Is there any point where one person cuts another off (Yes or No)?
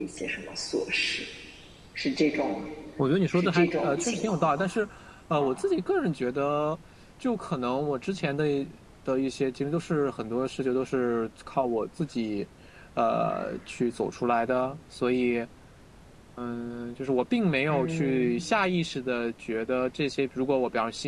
Yes